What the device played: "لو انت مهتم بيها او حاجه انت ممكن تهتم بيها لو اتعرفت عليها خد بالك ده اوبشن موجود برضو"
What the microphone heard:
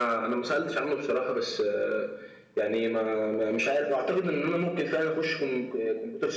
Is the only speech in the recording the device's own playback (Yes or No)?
No